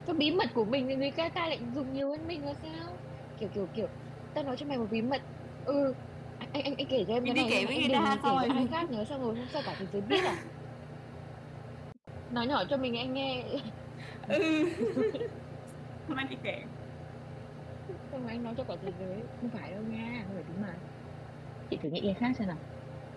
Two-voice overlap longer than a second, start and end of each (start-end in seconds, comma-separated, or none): 7.2-8.7